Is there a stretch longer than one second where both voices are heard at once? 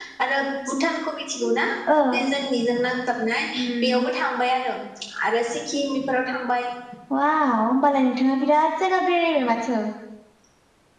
No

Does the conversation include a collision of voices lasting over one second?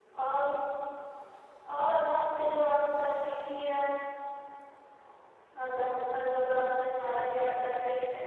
Yes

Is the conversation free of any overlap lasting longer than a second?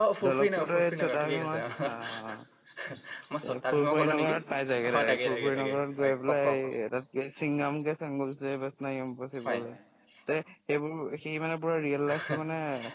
No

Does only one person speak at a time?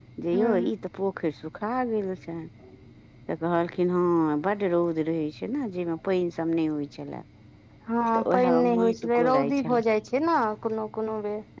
No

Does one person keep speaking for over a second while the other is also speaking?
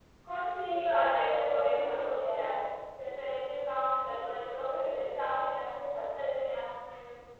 Yes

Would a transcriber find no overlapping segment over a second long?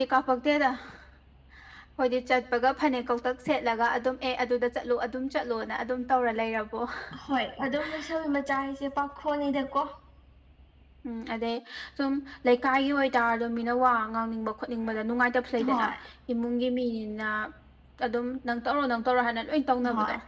Yes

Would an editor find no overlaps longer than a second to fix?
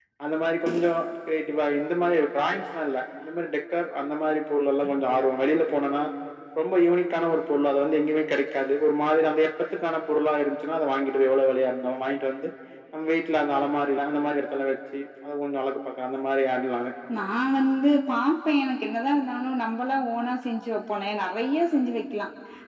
Yes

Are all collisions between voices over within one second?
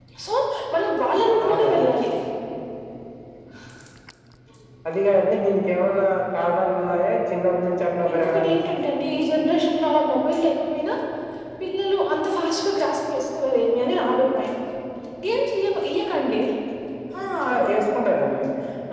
Yes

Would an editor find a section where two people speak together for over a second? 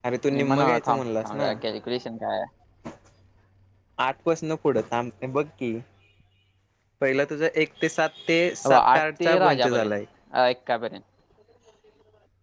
Yes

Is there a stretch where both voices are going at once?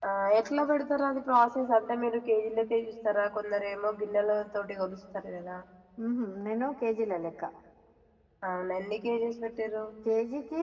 No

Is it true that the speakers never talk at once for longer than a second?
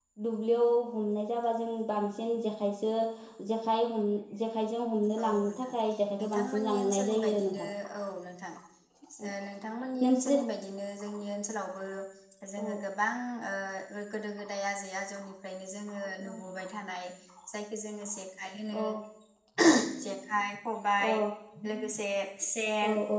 No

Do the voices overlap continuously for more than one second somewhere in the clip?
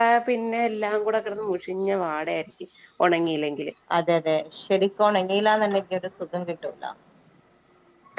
No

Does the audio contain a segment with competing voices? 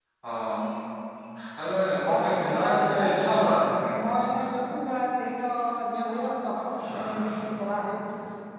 Yes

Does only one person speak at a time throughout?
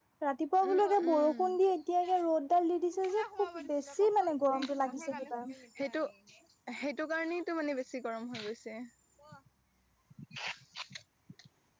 No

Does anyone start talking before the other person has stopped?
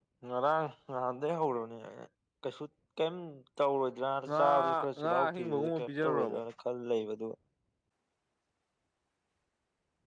Yes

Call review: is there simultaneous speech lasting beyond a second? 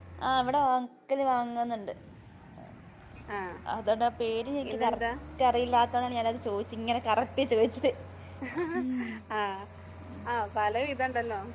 No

